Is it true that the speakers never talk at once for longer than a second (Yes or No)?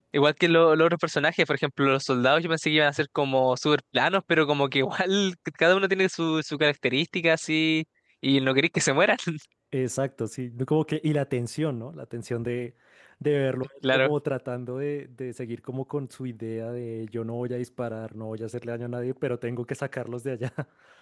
Yes